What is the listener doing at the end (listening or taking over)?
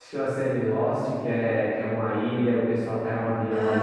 taking over